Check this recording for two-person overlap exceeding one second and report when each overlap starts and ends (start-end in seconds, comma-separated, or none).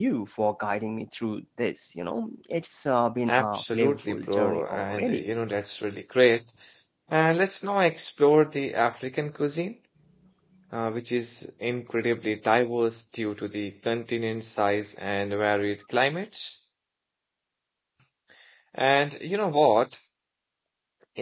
3.3-5.2